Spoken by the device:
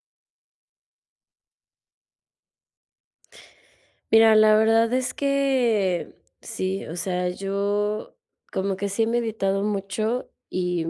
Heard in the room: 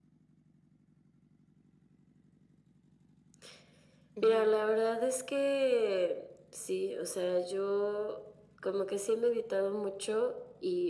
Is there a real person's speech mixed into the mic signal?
Yes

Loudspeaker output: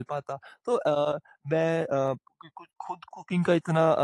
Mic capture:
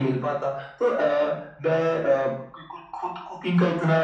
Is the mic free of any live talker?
Yes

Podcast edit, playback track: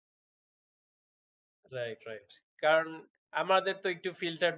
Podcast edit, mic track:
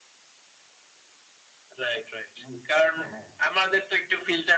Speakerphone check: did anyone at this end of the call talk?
Yes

